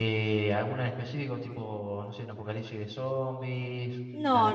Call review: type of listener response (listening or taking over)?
taking over